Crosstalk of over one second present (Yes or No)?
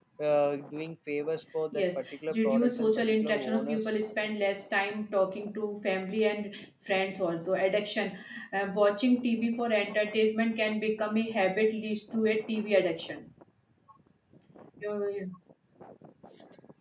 Yes